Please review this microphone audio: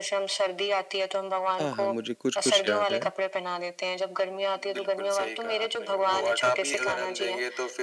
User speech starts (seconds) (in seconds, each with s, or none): 1.6 s